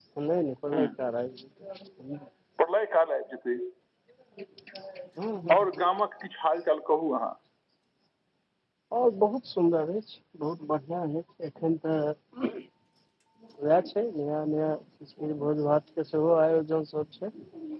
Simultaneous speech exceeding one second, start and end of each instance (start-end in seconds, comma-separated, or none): none